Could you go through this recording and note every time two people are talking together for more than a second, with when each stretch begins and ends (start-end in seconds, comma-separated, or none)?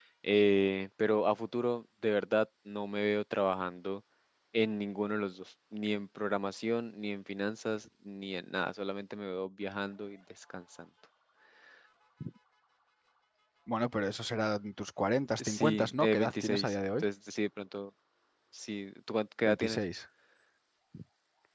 15.4-17.0